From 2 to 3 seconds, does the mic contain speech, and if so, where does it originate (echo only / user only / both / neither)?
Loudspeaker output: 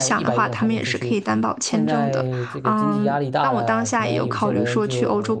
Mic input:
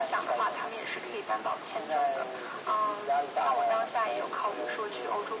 echo only